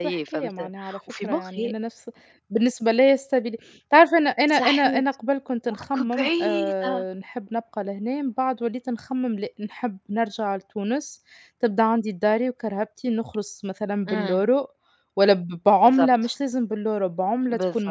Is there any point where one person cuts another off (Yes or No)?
Yes